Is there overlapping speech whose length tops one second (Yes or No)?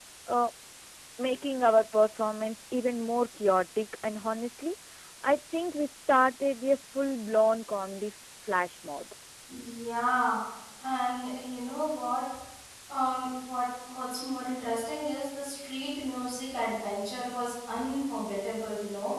No